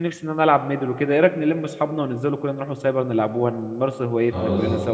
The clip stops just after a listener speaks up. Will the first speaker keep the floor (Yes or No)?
No